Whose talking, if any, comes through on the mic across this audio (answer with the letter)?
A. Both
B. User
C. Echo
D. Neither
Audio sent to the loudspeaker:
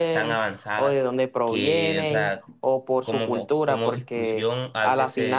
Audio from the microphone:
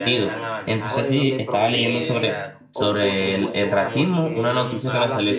A